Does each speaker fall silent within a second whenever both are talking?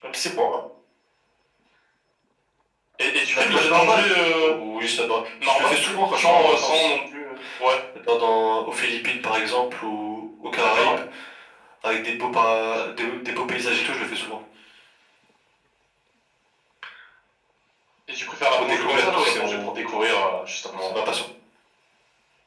No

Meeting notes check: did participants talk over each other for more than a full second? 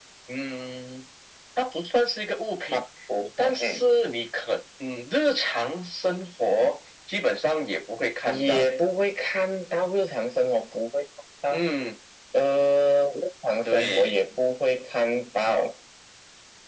No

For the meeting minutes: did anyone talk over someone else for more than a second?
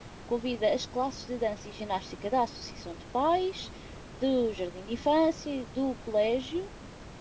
No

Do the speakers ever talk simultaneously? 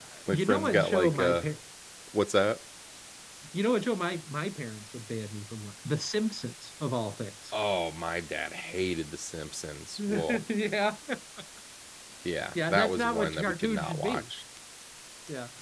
Yes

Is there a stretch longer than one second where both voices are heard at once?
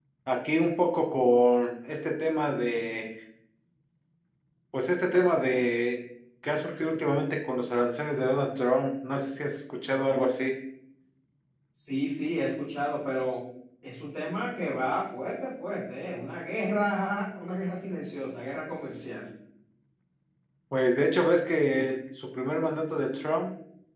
No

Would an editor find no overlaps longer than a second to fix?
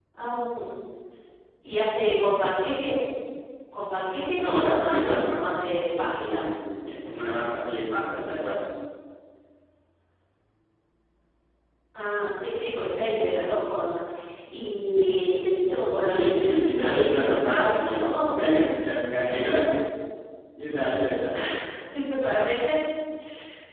No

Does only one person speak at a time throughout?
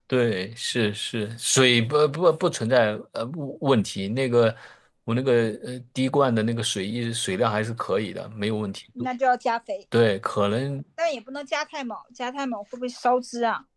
Yes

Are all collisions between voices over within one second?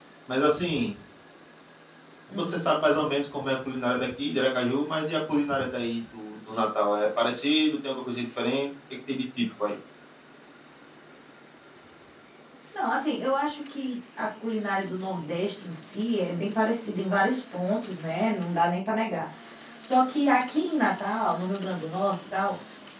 Yes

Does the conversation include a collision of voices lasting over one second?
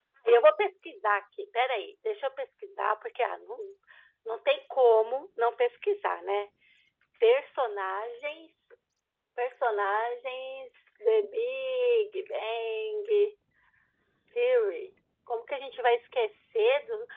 No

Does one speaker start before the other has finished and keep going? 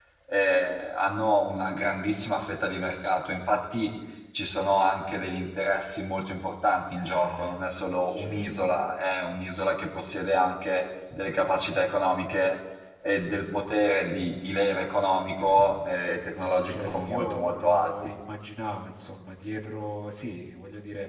Yes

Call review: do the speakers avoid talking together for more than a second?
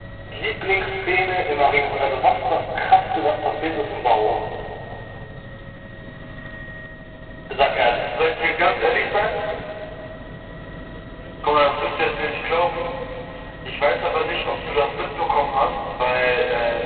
Yes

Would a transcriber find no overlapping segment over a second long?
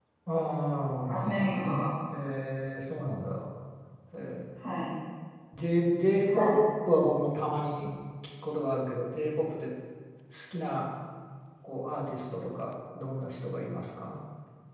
Yes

